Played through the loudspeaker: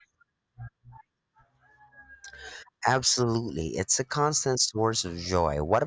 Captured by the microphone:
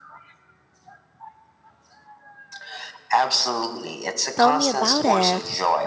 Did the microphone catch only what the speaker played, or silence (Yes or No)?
No